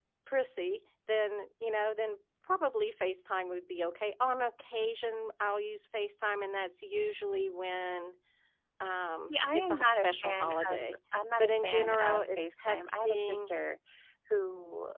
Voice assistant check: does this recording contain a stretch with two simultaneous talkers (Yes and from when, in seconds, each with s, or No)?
Yes, from 9.3 s